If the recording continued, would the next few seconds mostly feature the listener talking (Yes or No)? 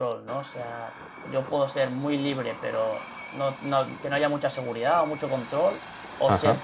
No